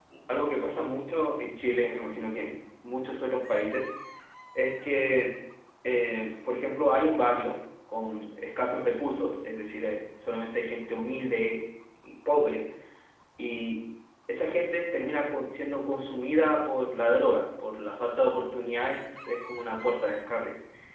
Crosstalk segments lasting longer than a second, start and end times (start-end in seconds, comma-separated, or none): none